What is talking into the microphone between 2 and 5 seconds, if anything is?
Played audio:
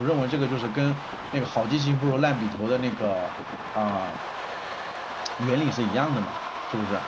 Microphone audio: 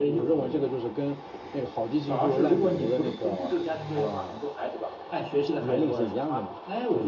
both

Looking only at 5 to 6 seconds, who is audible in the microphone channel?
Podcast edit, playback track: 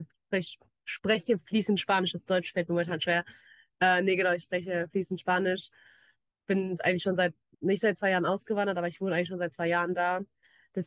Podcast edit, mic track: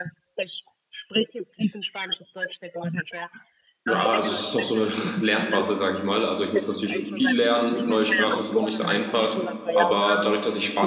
both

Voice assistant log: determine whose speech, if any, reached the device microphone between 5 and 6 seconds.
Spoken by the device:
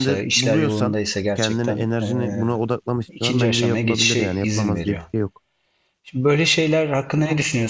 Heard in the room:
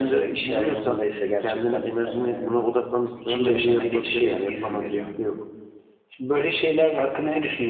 echo only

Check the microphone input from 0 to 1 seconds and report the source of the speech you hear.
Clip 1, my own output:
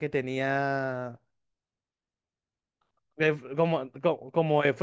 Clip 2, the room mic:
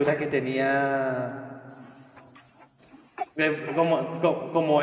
echo only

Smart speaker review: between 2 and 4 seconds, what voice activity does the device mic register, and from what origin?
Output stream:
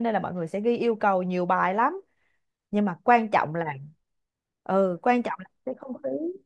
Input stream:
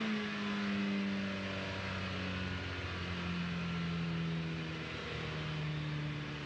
neither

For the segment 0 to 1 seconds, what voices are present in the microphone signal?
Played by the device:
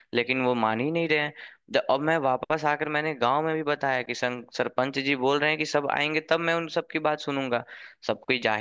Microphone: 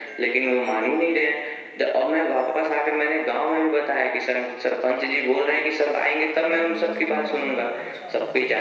echo only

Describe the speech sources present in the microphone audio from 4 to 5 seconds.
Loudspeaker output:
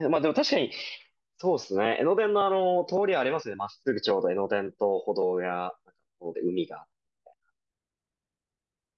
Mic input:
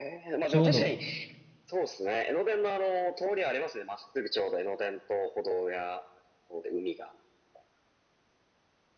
echo only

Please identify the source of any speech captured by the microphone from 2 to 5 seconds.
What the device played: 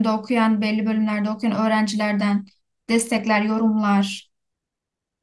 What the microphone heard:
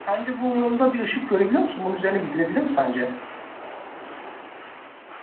user only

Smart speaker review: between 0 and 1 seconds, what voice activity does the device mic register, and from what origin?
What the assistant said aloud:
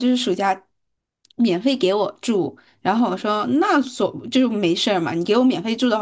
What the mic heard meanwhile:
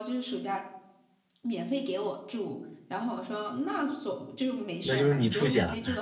echo only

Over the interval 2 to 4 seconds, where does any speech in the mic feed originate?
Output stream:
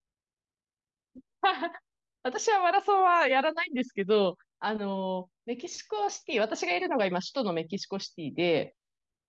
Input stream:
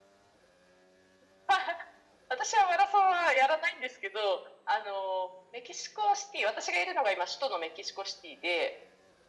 echo only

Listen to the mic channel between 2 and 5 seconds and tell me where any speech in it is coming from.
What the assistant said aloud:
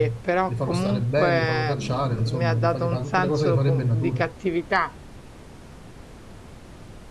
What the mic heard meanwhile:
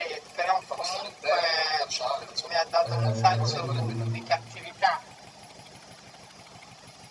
both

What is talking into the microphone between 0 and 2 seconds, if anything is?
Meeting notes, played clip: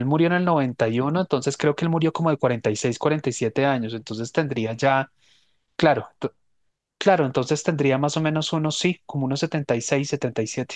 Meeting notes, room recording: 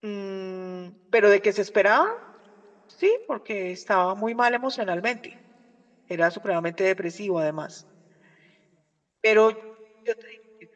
user only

